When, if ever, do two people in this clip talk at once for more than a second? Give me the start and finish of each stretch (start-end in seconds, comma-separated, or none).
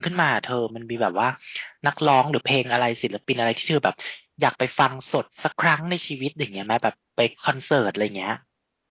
none